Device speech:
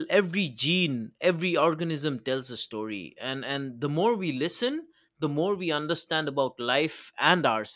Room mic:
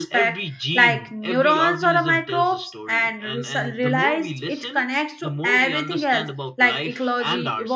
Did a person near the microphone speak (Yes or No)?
Yes